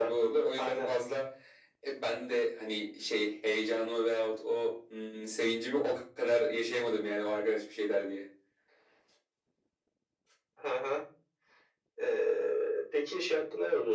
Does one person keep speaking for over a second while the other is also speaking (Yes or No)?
No